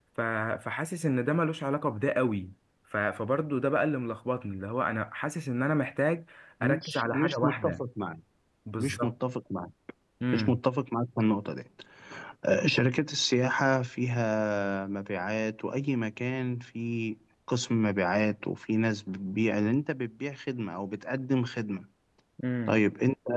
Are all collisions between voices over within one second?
No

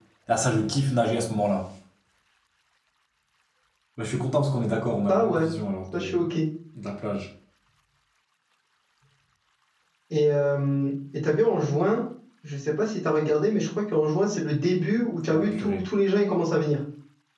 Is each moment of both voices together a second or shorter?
Yes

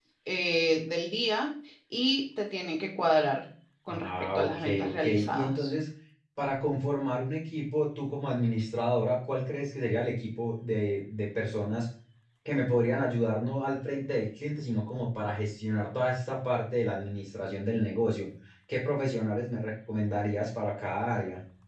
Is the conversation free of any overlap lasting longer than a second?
No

